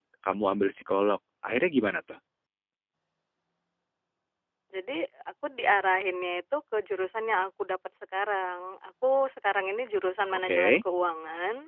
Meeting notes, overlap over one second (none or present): none